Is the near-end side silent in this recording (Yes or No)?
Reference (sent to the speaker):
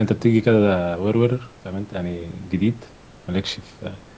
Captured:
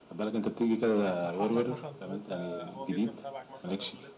No